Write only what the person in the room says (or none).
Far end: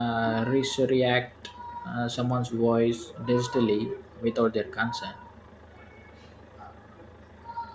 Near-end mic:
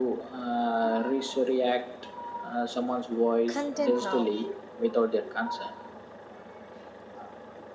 content now.